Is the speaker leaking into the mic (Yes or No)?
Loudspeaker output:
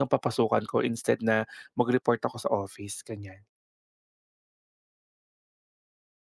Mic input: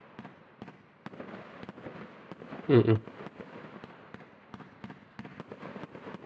No